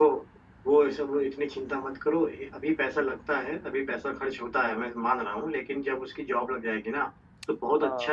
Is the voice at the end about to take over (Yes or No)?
No